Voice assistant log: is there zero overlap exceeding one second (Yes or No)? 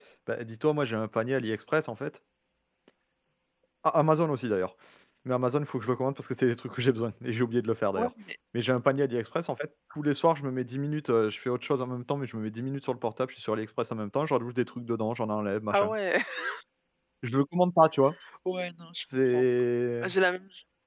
Yes